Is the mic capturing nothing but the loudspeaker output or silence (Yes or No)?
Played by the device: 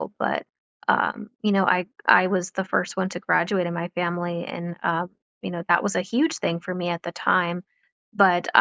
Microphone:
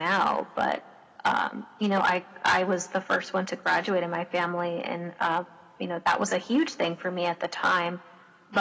Yes